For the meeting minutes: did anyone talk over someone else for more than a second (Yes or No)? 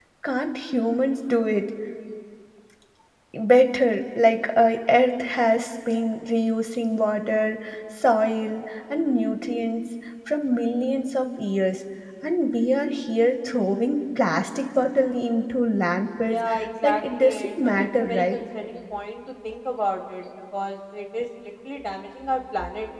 Yes